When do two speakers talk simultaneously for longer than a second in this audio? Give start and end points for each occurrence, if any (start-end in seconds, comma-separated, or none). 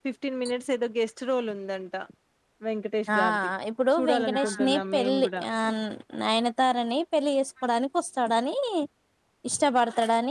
3.9-5.4